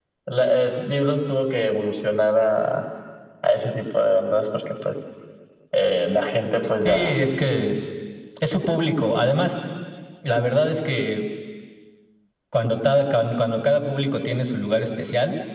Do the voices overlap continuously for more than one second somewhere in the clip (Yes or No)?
No